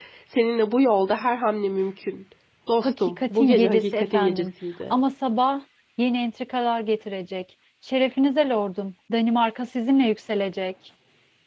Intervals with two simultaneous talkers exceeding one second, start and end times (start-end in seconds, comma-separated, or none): 2.8-4.5